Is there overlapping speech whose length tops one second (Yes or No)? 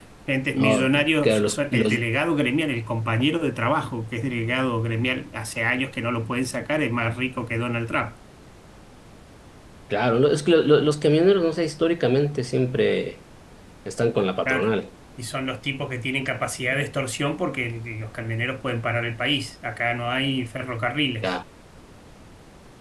Yes